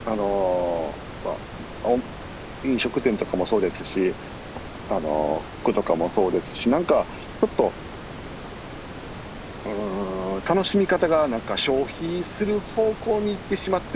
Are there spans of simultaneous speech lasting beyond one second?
No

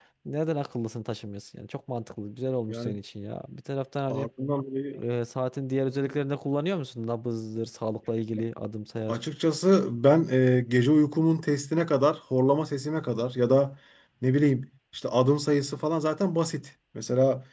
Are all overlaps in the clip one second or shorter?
Yes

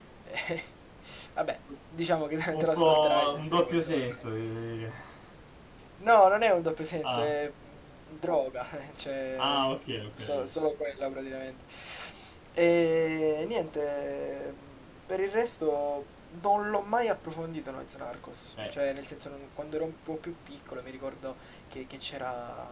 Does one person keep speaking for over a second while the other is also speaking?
Yes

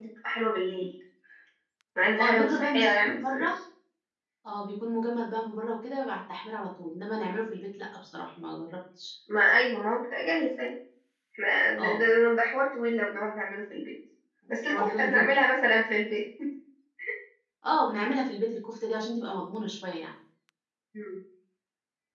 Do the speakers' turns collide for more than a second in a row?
Yes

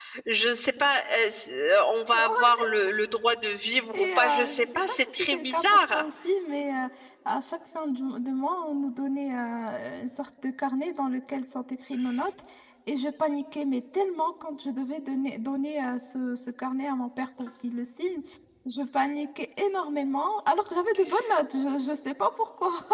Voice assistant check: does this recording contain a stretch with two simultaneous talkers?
Yes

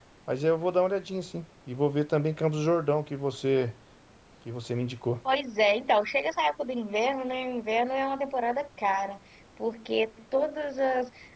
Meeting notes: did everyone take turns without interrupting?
Yes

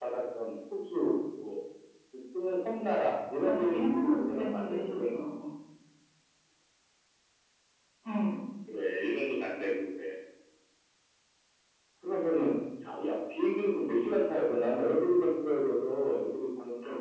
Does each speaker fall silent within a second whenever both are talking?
No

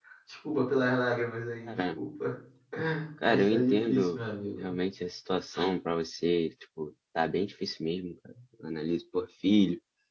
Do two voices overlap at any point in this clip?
Yes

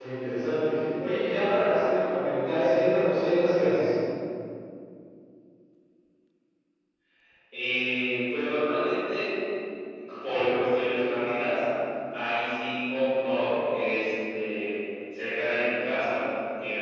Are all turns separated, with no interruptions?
Yes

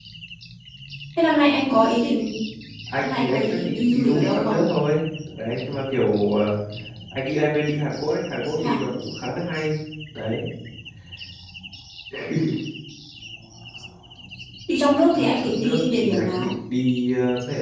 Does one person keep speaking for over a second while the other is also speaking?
Yes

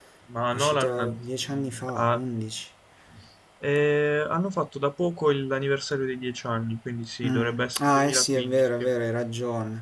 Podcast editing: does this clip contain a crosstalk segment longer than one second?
Yes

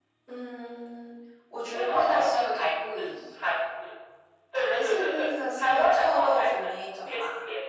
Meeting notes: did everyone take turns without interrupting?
No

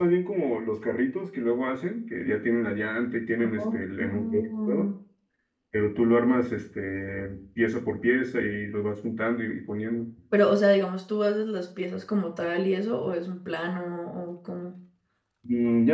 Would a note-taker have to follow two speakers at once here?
Yes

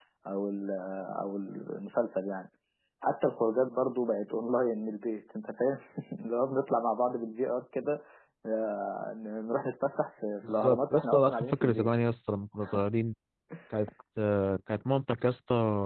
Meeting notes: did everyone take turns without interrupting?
No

